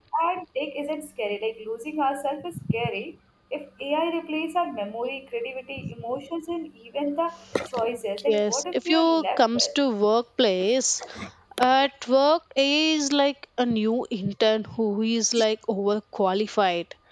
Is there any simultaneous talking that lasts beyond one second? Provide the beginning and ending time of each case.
8.2-9.7

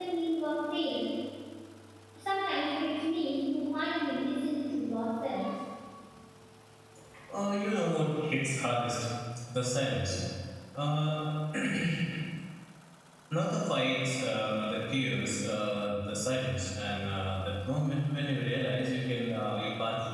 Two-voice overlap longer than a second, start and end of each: none

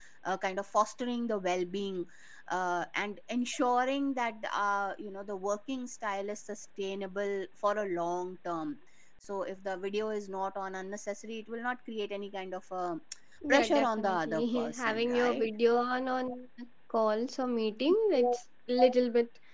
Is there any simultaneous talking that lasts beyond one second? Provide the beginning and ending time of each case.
13.5-15.5

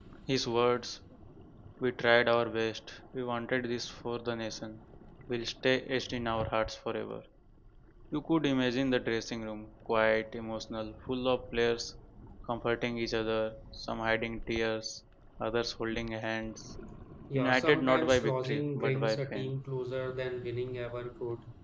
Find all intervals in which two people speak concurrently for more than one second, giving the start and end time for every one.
17.3-19.5

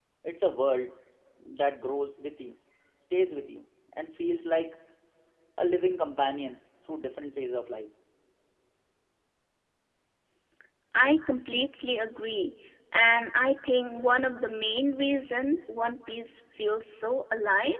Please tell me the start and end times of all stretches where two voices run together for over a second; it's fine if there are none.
none

